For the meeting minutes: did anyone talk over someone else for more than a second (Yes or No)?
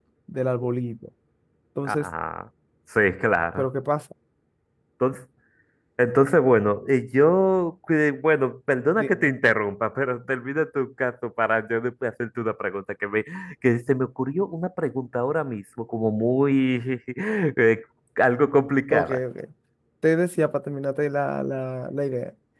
No